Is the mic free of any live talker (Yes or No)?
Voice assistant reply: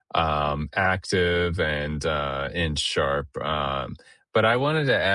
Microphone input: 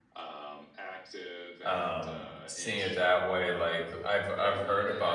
No